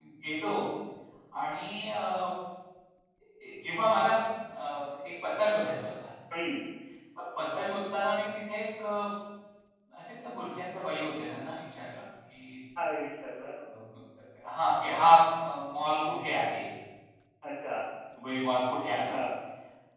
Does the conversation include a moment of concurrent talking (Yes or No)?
No